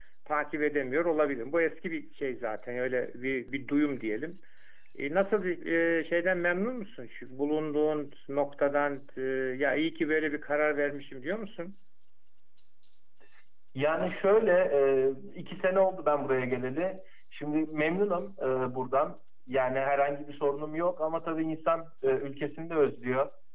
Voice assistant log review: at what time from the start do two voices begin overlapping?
none

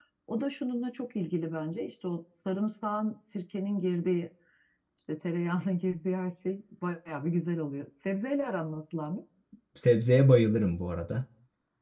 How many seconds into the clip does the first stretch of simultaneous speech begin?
none

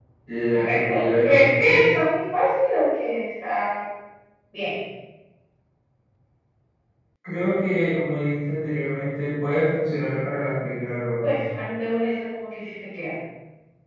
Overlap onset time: 0.5 s

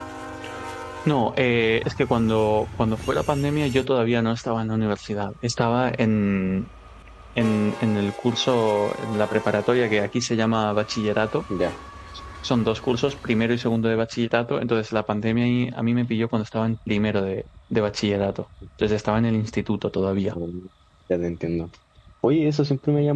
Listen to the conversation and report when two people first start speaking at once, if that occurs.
none

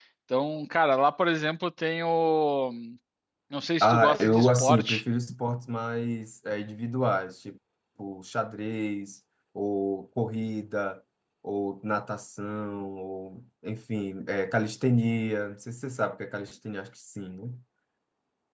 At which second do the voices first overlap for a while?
3.8 s

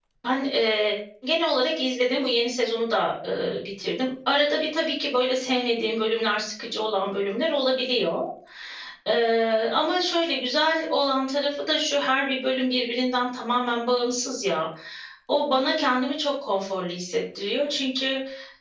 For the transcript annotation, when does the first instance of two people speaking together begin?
none

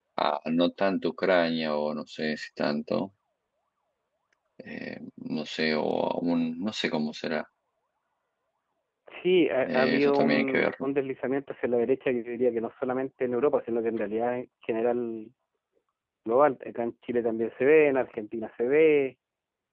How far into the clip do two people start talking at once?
9.6 s

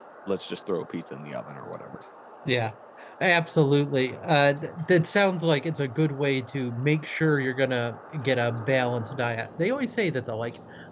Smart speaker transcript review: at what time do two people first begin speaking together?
none

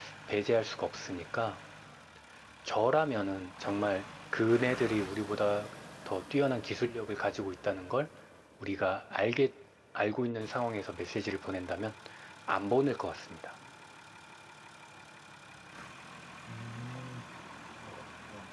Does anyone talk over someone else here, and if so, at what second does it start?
none

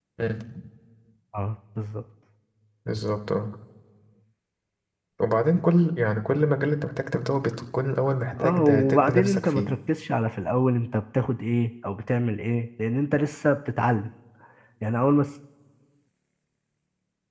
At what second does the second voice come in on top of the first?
8.4 s

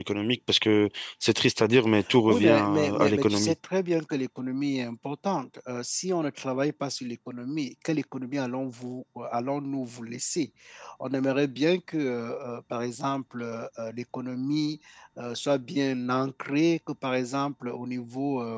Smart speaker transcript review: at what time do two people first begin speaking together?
2.3 s

